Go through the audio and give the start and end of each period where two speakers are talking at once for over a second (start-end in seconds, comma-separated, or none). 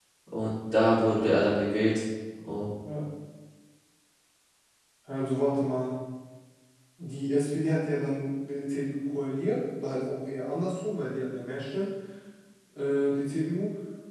none